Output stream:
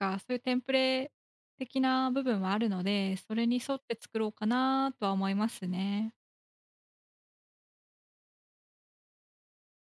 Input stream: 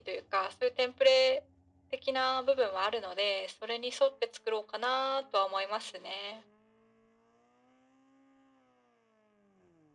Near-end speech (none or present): none